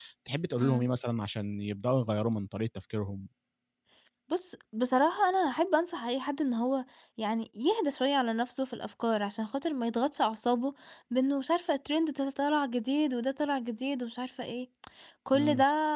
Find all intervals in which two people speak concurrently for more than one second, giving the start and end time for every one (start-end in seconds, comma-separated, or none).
none